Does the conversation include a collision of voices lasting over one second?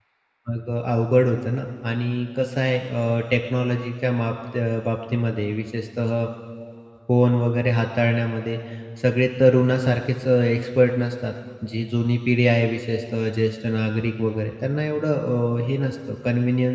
No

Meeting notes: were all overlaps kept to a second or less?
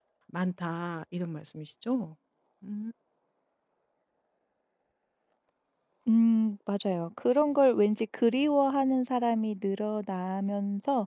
Yes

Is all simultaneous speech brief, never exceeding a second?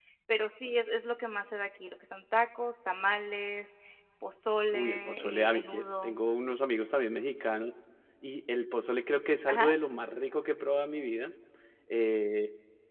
No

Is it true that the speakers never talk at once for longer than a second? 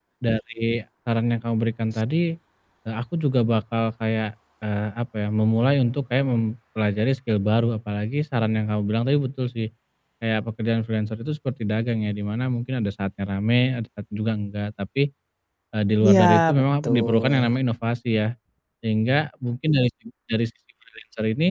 No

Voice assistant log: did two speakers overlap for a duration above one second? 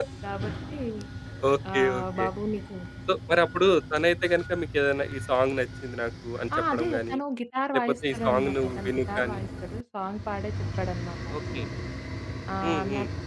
Yes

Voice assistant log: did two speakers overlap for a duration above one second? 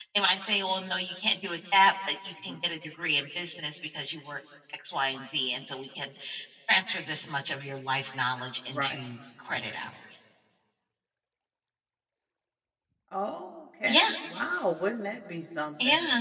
No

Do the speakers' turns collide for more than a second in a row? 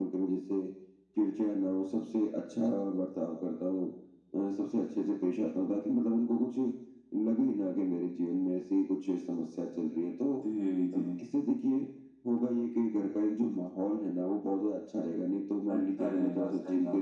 Yes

